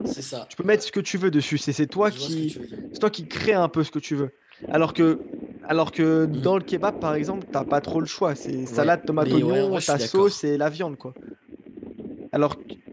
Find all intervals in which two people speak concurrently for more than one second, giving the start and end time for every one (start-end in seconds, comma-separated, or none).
8.7-10.4